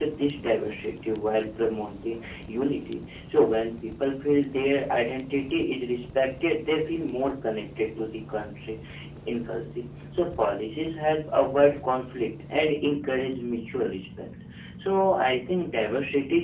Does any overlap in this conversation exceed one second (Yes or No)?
No